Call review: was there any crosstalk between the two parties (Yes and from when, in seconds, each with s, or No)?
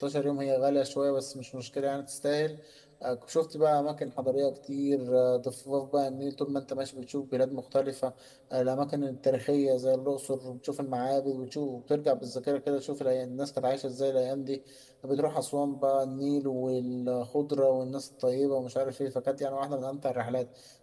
No